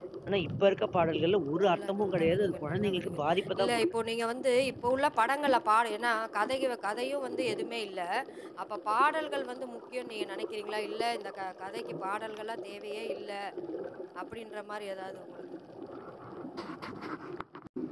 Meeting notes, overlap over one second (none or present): present